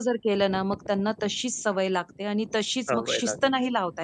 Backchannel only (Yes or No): Yes